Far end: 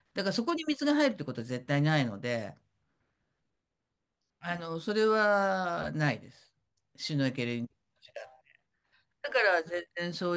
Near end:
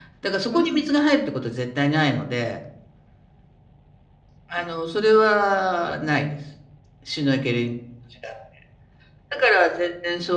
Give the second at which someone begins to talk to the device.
0.5 s

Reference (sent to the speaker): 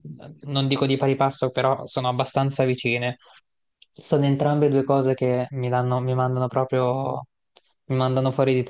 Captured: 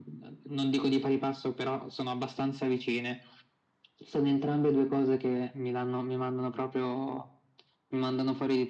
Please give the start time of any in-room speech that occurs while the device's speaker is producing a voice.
none

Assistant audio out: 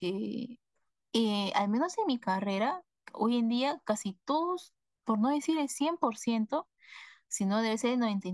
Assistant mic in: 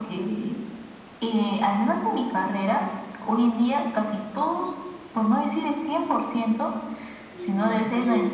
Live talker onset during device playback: 7.3 s

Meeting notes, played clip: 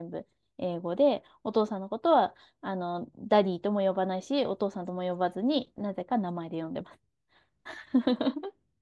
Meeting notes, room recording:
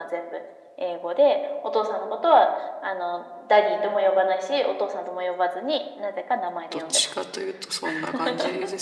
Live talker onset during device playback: 6.7 s

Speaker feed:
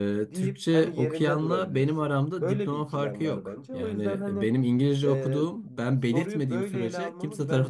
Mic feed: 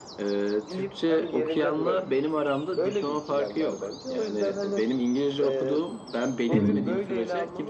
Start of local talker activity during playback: 6.5 s

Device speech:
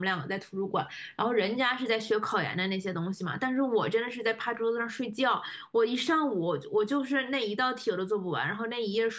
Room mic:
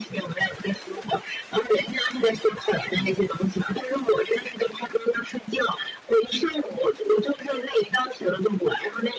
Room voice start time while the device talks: none

